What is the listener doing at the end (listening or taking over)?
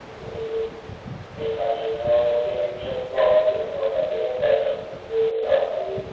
listening